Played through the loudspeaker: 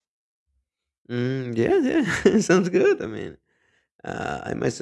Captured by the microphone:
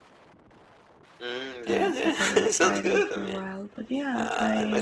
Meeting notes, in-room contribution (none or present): present